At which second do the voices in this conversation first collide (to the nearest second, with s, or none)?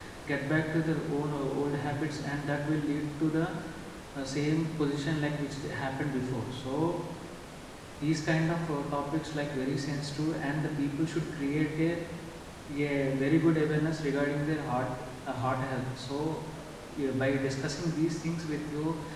none